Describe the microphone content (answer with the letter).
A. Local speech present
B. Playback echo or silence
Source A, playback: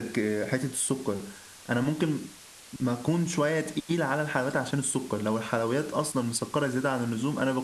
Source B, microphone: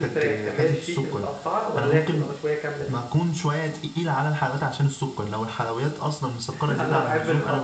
A